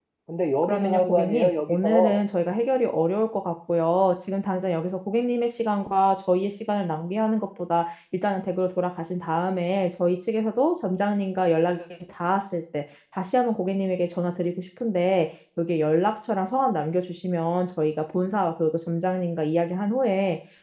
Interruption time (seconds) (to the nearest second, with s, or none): 1 s